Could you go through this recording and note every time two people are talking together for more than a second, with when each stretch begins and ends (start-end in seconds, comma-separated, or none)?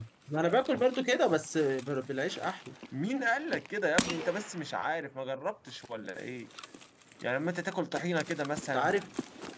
none